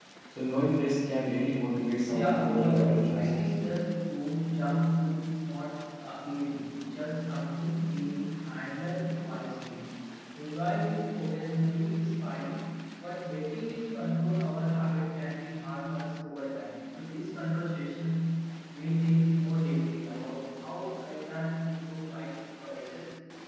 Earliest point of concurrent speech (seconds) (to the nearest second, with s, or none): 2 s